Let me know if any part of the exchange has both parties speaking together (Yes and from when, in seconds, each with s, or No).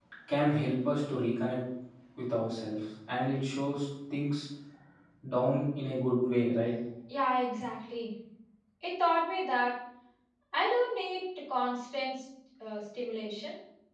No